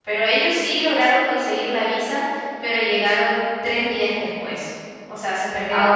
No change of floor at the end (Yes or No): No